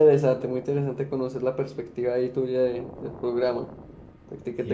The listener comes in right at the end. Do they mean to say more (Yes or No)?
Yes